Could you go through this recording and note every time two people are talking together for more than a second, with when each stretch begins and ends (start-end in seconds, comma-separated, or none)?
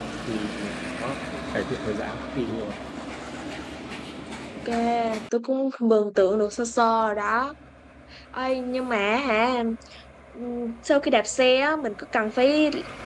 none